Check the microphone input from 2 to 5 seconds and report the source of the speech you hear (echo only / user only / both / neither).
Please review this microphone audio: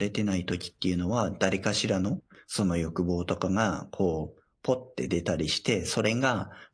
user only